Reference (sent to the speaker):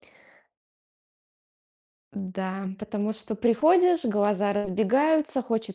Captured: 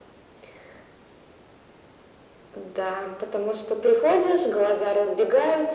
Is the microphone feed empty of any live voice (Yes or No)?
Yes